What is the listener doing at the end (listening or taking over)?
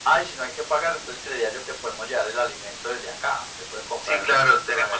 taking over